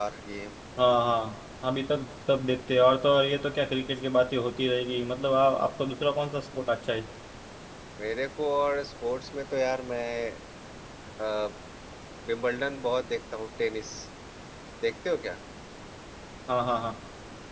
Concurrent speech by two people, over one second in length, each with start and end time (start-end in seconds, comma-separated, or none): none